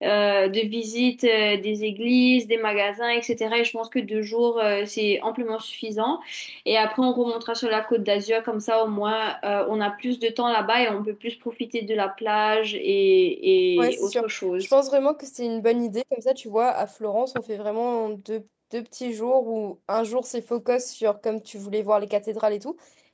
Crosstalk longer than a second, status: none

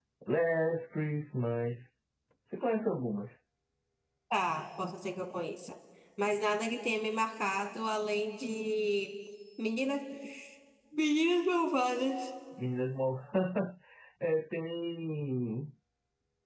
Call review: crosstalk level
none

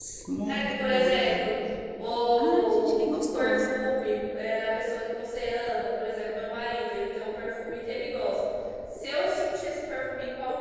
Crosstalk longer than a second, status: present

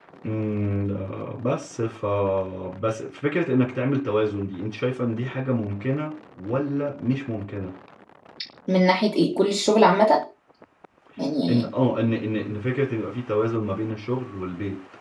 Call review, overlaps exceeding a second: none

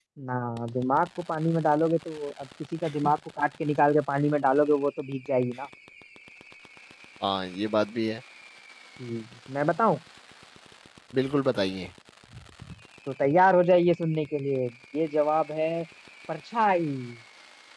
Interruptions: none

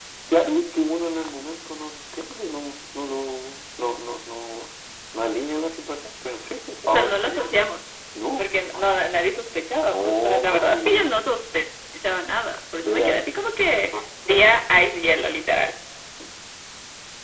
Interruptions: present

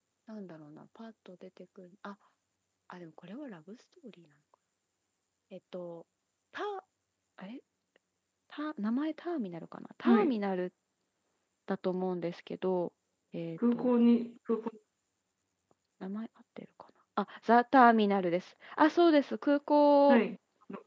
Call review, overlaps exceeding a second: none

